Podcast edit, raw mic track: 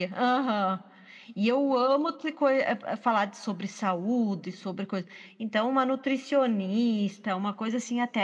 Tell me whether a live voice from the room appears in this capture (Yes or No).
No